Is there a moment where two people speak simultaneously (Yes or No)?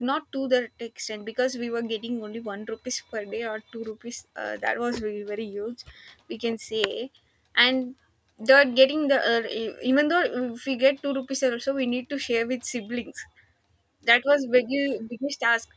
No